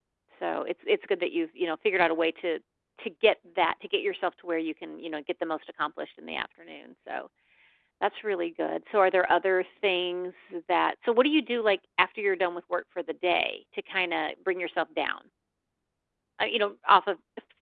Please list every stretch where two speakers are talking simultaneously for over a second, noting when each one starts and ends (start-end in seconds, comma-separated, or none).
none